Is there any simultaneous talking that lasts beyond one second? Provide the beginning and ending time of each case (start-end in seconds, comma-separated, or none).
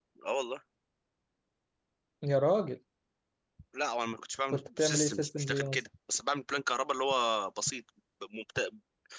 4.5-5.8